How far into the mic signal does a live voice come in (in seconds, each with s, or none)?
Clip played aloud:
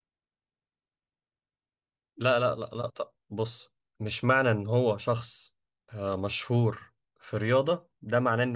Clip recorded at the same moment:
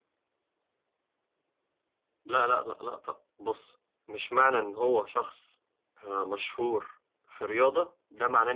none